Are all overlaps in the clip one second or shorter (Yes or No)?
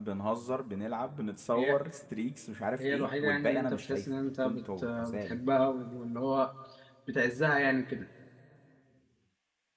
No